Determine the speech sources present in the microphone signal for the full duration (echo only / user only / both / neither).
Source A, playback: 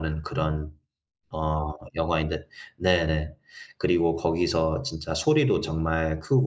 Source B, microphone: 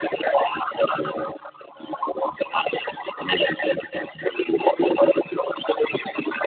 echo only